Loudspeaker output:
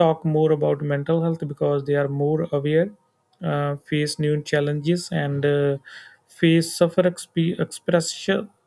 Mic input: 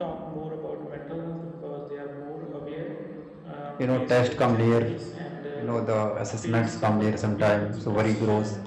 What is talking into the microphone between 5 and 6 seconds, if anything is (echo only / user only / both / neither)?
both